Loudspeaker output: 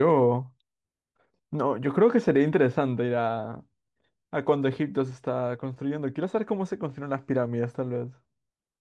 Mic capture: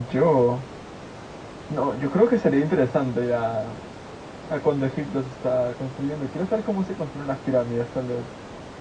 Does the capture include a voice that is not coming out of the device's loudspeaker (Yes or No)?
No